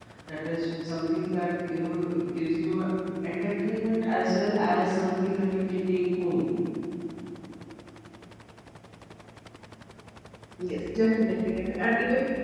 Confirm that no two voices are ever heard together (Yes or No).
Yes